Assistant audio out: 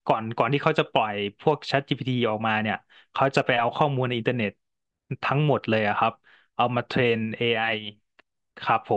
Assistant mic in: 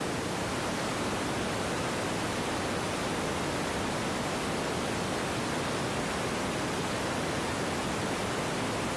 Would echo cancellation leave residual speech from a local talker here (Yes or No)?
No